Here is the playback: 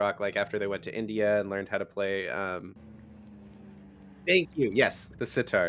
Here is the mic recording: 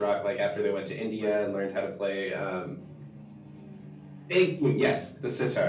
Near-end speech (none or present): none